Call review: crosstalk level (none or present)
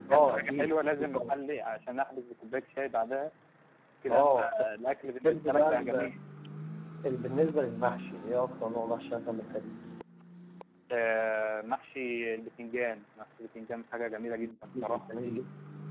present